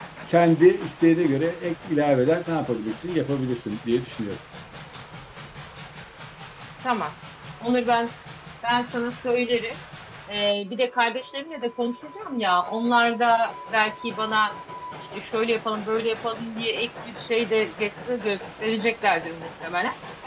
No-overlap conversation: Yes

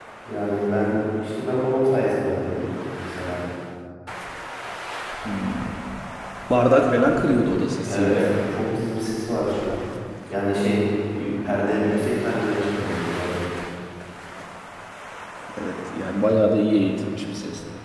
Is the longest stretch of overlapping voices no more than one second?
Yes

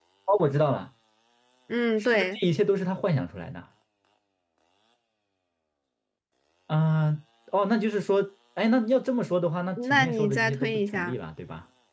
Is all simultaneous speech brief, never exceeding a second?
No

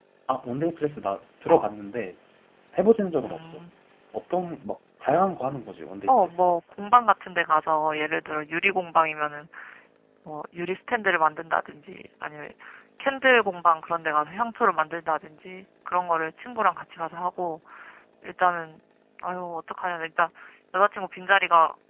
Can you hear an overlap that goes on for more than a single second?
No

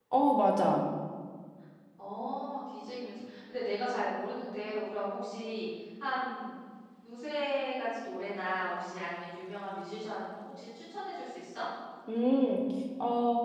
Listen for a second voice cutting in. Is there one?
No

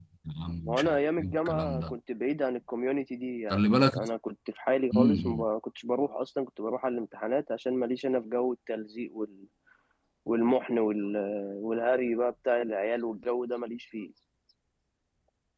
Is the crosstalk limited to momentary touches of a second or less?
No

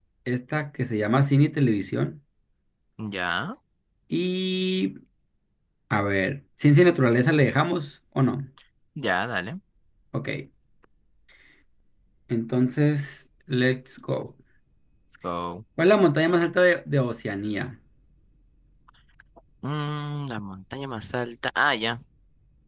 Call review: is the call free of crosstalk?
Yes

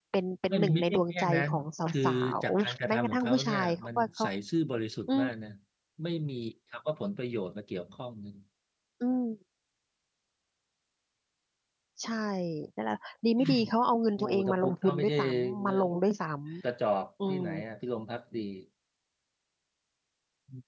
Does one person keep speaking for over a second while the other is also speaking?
Yes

